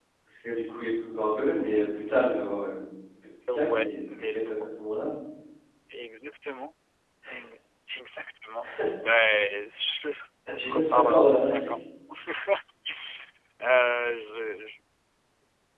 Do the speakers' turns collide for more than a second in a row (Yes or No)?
Yes